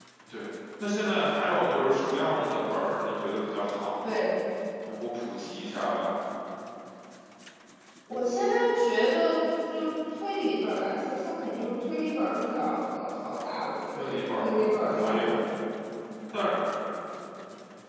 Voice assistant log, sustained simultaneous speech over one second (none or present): present